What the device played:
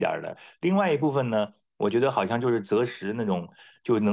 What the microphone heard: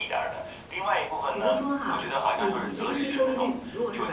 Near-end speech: present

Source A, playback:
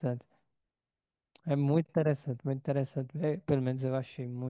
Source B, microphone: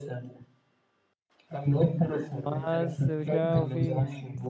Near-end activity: present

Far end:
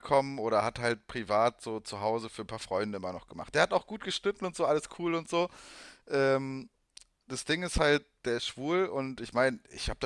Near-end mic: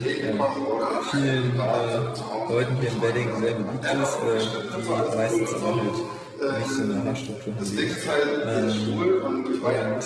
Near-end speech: present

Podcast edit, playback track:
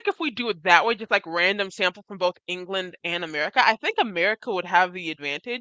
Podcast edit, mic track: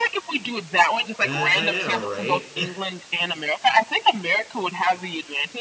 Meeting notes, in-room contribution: present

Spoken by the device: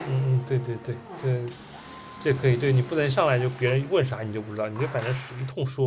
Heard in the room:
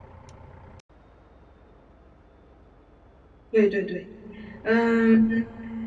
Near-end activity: present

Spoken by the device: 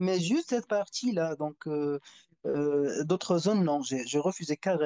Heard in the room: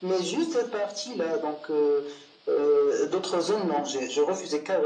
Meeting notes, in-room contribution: none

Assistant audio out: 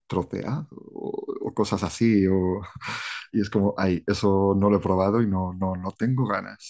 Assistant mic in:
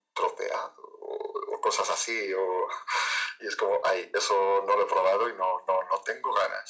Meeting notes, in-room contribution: none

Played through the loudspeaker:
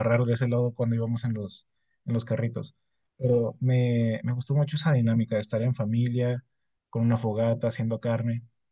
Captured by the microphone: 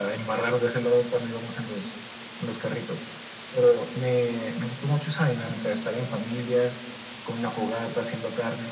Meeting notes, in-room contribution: none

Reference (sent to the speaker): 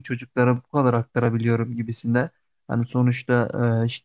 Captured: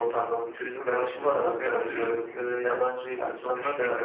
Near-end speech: present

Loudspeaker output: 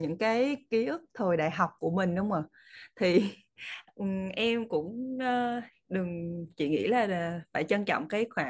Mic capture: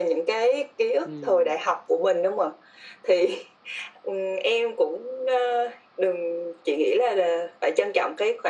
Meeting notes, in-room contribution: present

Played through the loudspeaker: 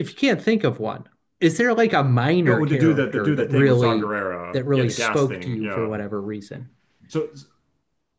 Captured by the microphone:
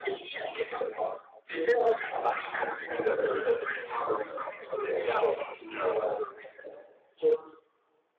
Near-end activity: none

